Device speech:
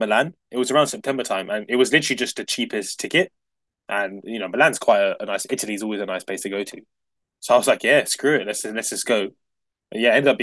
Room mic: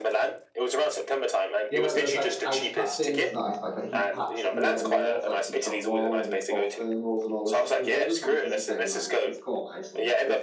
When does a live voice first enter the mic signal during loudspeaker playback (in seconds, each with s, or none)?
1.7 s